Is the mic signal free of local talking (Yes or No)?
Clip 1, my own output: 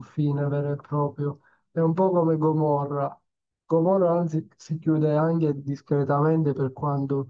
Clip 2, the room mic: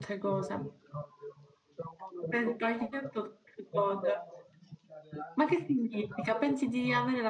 No